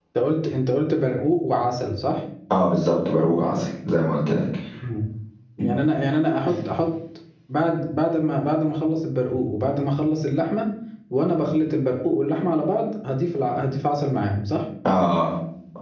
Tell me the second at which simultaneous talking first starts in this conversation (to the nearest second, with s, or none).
none